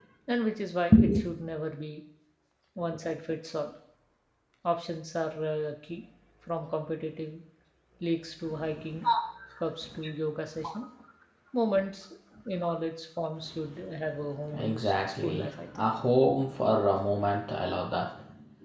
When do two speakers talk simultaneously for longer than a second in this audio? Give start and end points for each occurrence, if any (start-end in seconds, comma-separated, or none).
14.6-15.8